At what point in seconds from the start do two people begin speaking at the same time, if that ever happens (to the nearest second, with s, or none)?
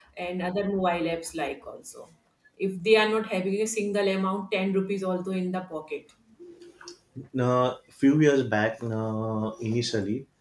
none